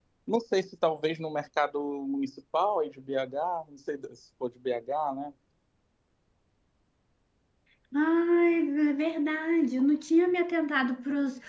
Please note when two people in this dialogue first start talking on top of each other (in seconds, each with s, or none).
none